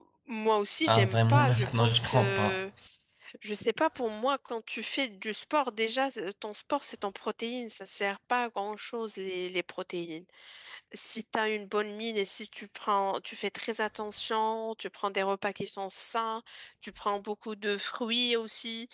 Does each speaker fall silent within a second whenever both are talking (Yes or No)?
No